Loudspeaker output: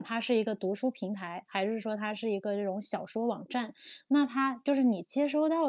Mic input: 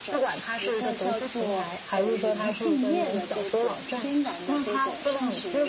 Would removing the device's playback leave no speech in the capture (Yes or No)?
No